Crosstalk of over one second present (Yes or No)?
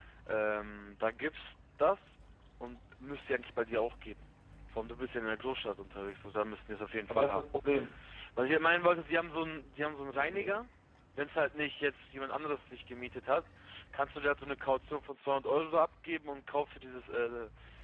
No